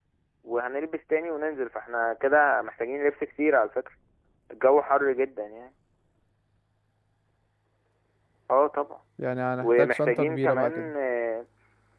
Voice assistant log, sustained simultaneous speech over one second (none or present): present